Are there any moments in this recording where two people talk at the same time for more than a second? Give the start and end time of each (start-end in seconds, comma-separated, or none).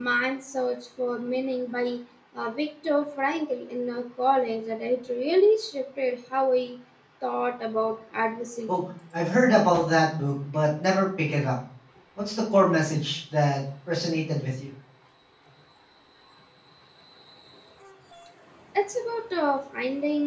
none